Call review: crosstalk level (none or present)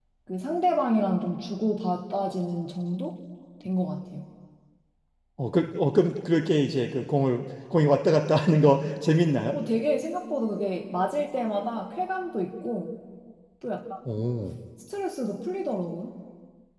none